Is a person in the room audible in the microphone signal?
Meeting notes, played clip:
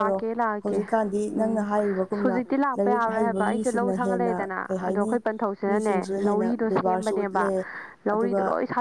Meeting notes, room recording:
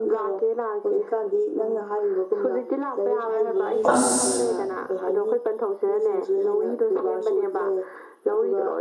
Yes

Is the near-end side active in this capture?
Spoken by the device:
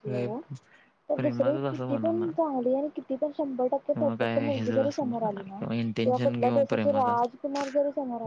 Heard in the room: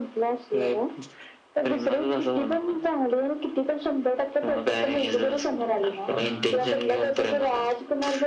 Yes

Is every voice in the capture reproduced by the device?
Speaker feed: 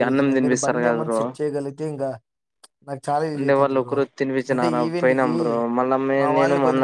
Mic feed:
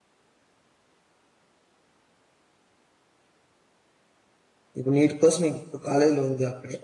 No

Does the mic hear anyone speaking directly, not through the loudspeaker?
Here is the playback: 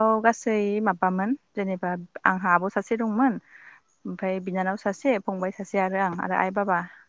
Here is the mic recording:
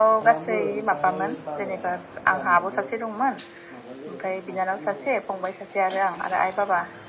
Yes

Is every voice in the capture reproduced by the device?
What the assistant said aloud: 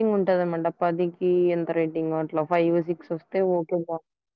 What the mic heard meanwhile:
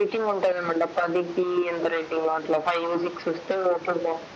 Yes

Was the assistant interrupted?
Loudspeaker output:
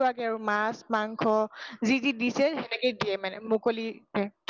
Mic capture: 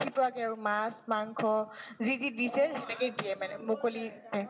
Yes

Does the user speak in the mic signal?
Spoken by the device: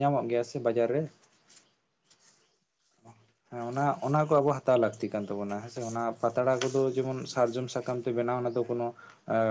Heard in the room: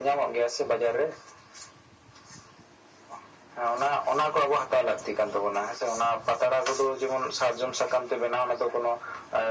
No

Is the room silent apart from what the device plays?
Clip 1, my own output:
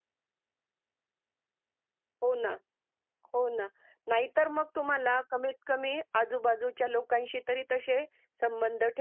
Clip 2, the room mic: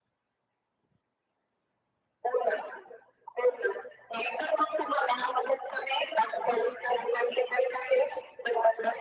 Yes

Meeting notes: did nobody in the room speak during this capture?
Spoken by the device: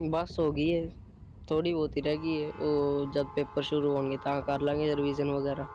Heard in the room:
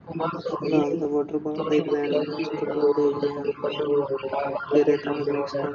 No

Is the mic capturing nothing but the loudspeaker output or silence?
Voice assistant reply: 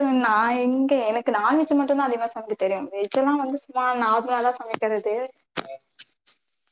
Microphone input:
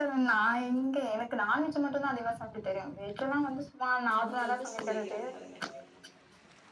No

